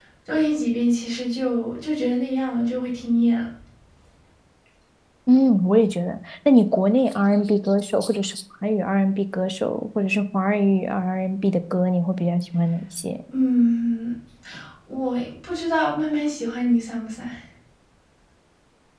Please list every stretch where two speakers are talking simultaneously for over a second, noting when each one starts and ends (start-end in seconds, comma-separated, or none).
none